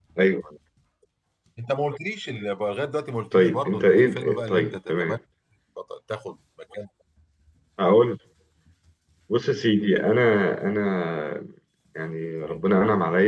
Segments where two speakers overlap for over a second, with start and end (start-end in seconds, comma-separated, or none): 3.3-5.2